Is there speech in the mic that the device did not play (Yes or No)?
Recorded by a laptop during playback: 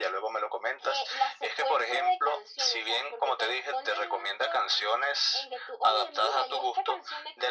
No